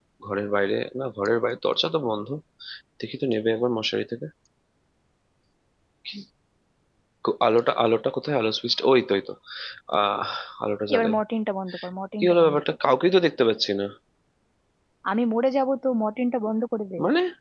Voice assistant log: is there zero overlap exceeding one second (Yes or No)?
Yes